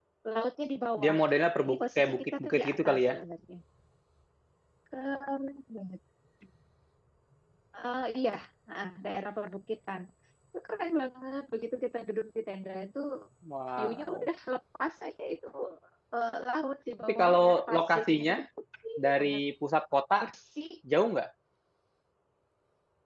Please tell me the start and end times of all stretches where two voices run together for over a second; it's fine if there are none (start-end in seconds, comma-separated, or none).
1.6-3.1, 17.0-18.4